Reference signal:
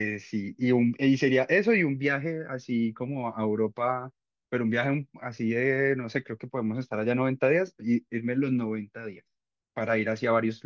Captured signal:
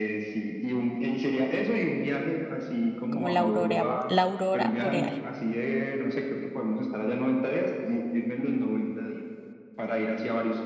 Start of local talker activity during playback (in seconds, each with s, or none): 3.1 s